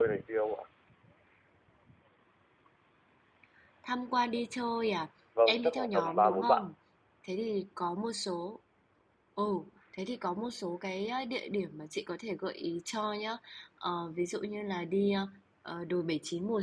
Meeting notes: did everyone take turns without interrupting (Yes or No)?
No